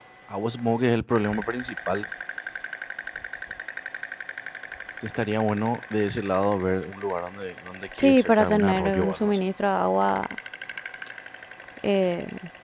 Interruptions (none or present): present